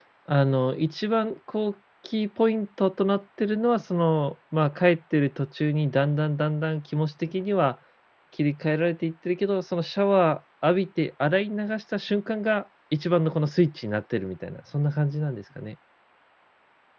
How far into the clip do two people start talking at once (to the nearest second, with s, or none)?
none